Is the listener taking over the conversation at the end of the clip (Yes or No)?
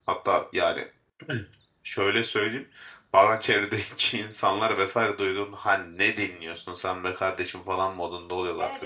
Yes